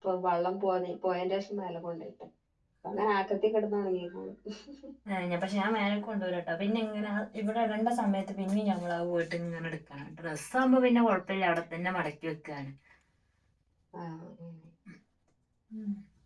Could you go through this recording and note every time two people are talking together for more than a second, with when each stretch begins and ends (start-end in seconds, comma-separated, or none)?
none